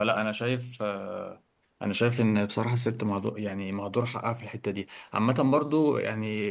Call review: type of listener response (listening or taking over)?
listening